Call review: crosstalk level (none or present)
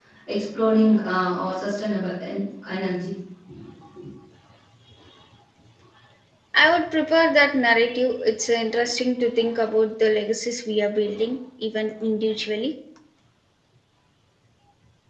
none